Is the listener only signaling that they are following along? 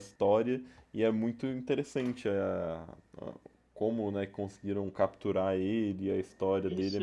No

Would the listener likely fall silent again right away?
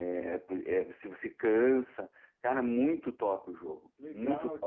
No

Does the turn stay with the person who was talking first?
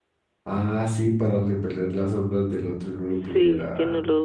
No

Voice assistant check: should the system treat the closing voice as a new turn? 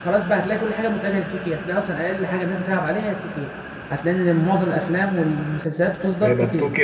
Yes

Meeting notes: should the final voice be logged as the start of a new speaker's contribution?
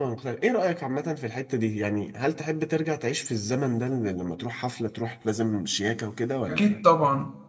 Yes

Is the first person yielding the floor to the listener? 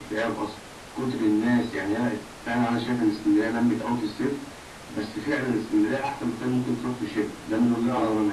Yes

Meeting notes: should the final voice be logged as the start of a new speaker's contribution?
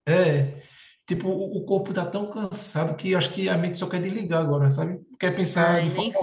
Yes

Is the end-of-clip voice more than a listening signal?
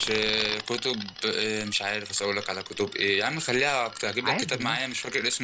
No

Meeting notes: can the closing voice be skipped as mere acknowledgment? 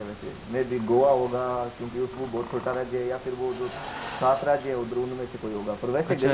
No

